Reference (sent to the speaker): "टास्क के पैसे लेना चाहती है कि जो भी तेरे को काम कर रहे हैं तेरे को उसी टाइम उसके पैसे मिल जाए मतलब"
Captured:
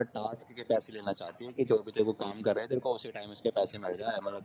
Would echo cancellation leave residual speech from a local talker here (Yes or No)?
No